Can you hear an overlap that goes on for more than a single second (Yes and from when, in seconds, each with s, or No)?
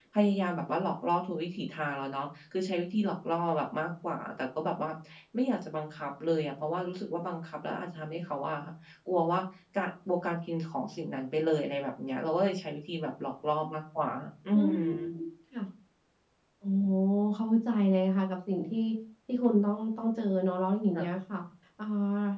No